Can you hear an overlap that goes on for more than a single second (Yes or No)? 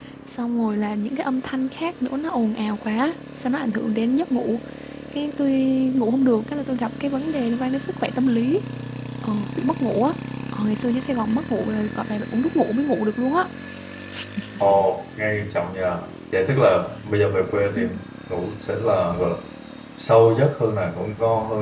No